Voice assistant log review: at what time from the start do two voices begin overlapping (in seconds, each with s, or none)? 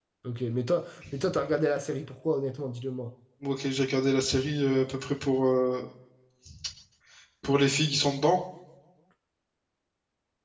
none